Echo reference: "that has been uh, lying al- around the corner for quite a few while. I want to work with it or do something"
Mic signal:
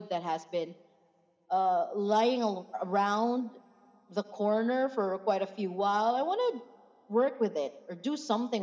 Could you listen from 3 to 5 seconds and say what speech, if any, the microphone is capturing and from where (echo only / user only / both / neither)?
echo only